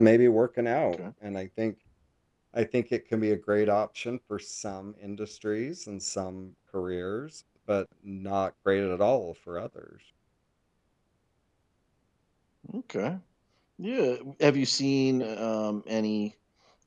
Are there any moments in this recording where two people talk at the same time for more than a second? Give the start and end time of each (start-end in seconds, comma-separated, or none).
none